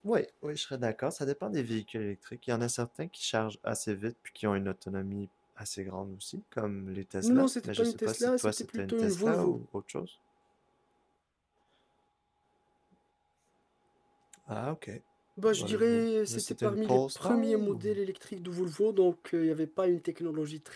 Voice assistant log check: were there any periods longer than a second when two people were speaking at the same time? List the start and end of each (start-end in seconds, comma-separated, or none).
7.2-9.6, 15.6-17.8